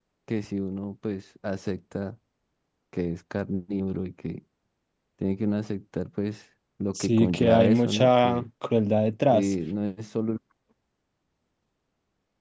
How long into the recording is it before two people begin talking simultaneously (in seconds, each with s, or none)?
7.0 s